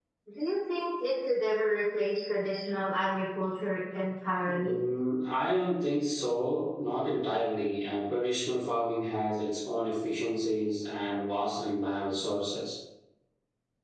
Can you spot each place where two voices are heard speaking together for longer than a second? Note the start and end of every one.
none

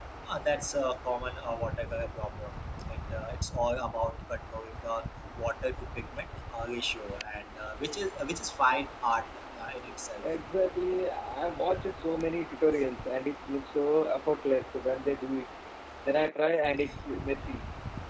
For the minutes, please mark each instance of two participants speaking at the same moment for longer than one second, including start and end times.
none

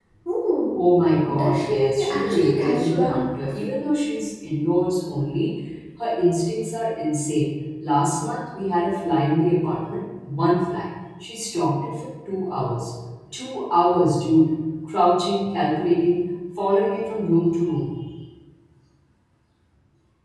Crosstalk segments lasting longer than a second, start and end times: 1.3-3.2

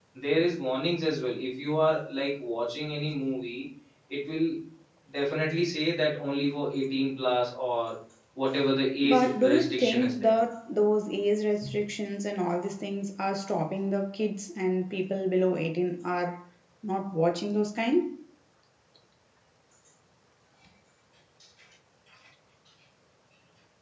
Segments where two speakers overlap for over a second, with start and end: 9.0-10.3

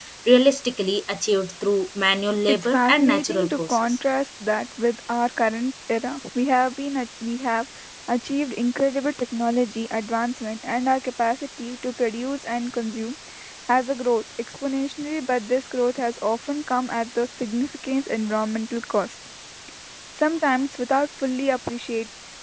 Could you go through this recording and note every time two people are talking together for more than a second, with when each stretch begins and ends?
2.5-4.0

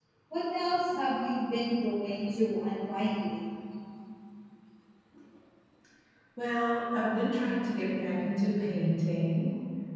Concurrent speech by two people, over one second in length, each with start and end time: none

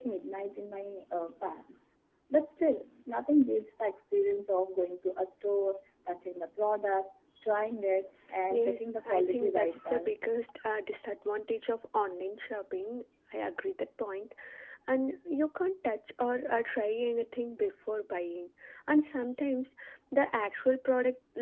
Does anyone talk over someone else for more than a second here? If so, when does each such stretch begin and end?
8.5-10.1

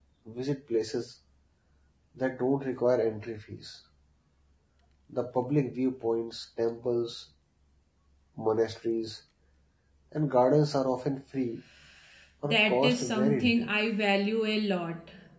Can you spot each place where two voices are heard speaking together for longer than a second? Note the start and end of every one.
12.4-13.7

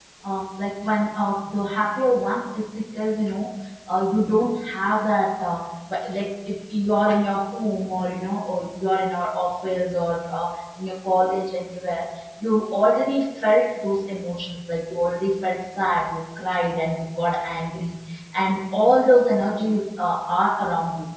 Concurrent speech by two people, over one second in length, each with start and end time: none

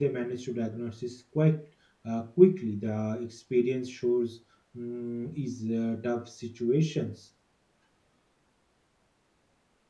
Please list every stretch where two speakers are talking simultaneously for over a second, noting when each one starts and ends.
none

